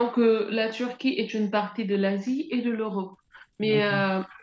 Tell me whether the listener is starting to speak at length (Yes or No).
No